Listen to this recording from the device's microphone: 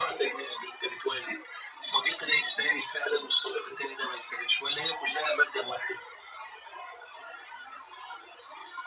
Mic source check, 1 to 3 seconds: echo only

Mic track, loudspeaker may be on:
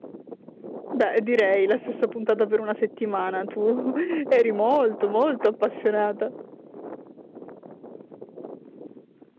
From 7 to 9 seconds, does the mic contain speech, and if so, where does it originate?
neither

